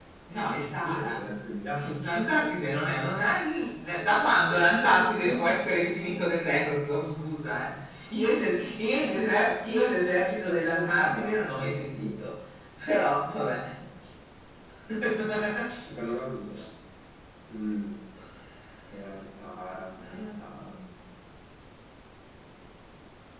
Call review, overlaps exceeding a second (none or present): present